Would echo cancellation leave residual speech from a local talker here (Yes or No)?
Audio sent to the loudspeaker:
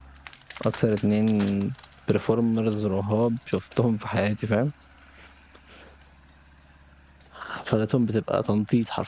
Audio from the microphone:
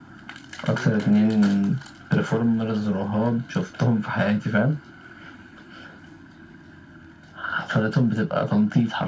Yes